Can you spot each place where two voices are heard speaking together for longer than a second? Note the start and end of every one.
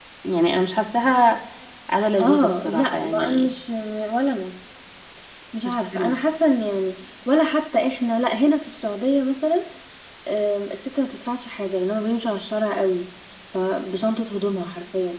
2.2-3.5

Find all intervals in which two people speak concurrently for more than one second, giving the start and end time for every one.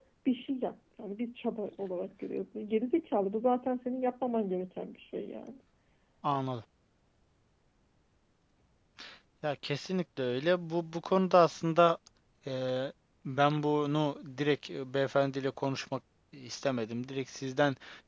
none

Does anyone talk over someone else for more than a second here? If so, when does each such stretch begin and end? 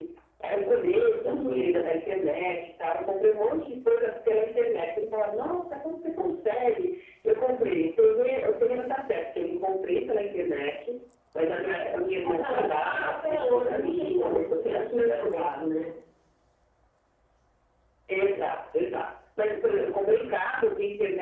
12.2-15.2

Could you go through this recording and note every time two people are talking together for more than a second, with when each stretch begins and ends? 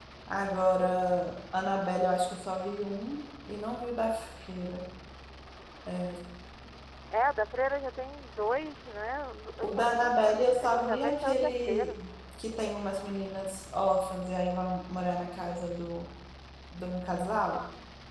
9.6-12.0

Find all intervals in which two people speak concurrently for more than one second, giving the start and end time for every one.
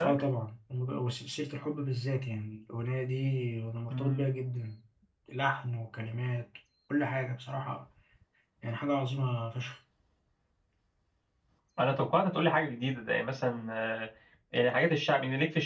none

